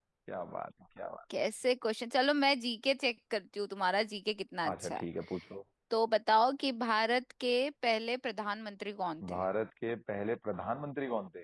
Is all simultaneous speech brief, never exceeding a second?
Yes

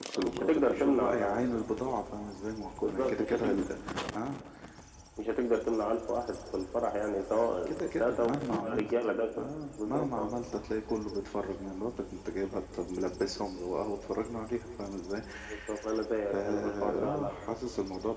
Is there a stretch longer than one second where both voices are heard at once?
Yes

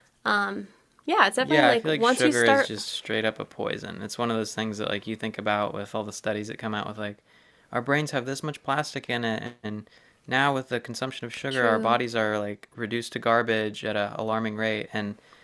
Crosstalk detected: Yes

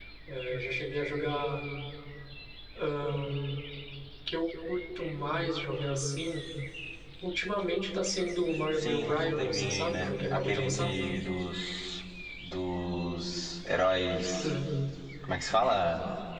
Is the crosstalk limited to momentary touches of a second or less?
No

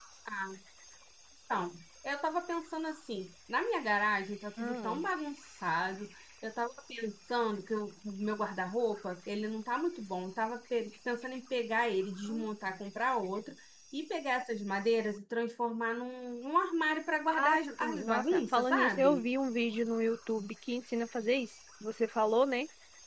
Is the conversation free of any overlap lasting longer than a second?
No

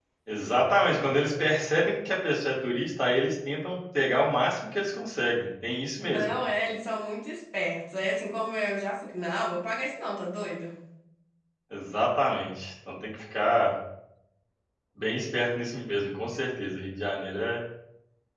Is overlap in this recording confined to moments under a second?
Yes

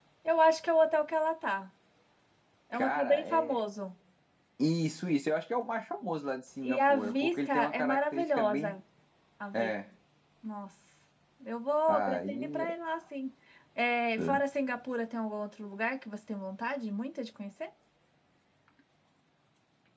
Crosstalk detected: Yes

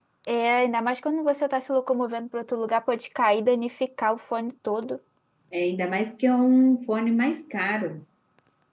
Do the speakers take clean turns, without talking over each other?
Yes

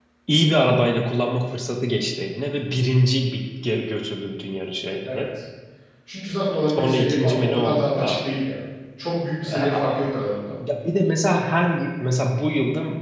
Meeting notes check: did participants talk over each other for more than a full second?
Yes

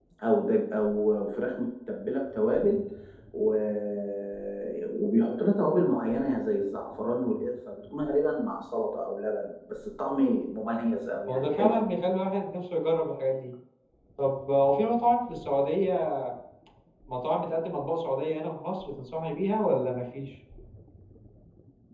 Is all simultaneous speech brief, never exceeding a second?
Yes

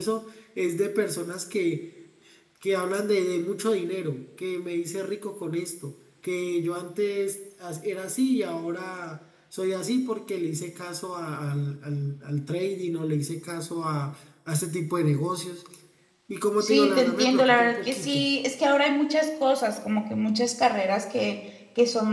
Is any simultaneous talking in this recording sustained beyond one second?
Yes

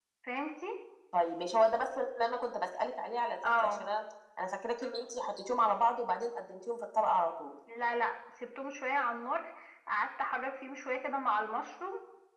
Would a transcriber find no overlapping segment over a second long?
Yes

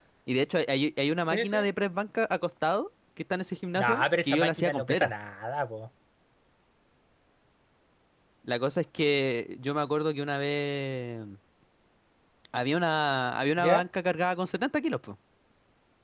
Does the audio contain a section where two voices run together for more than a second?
Yes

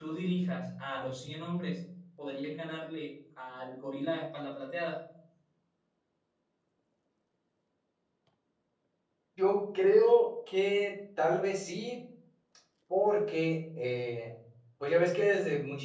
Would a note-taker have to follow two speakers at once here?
No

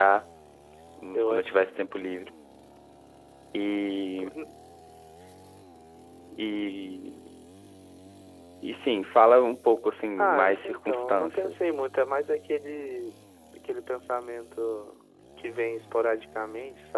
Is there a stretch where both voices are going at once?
Yes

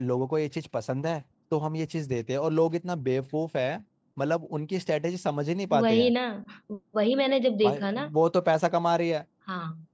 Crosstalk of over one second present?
No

